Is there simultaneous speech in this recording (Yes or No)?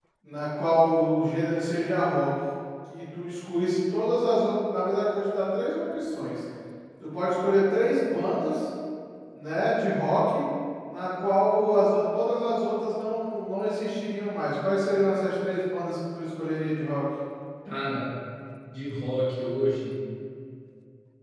No